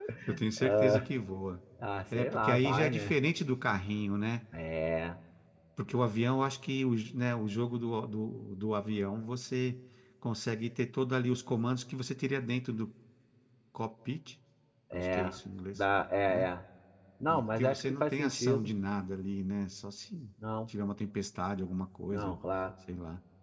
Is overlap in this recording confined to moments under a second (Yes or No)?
No